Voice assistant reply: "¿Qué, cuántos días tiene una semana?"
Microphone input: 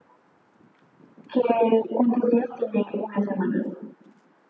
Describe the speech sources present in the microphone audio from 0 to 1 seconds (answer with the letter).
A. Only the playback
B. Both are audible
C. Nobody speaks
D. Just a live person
C